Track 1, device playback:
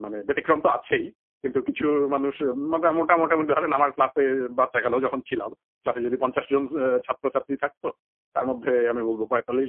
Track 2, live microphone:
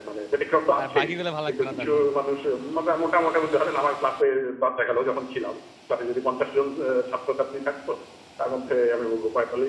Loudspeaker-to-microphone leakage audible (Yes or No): Yes